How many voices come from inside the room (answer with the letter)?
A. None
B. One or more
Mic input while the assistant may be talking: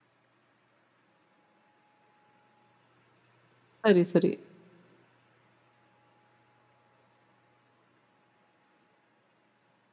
B